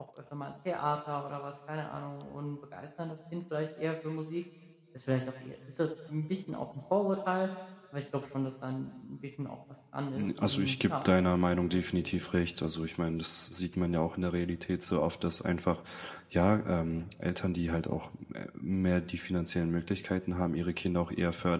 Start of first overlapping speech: 10.2 s

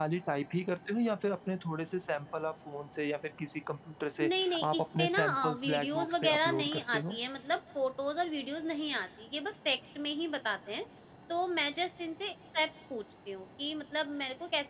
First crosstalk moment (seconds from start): 4.2 s

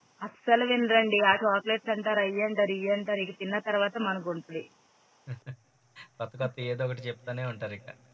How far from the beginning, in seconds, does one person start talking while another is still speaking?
none

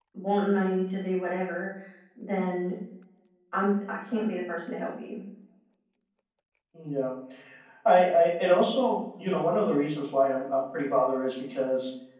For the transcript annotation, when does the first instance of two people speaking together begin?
none

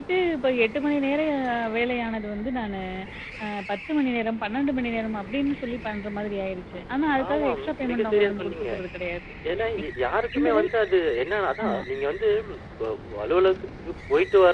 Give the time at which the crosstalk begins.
7.3 s

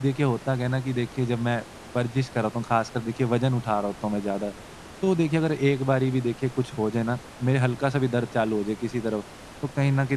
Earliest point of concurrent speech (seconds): none

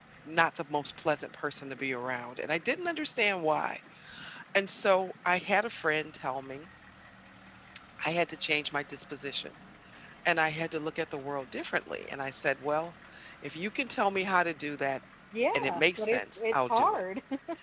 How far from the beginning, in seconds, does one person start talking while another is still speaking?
15.5 s

